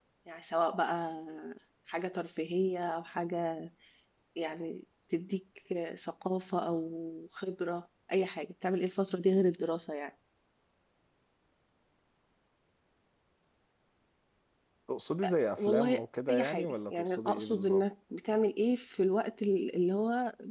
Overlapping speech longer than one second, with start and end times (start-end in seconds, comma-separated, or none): 15.6-17.8